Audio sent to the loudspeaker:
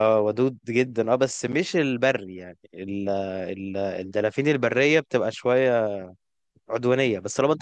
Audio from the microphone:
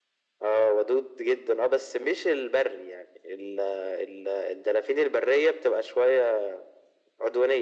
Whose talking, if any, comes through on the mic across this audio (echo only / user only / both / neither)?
echo only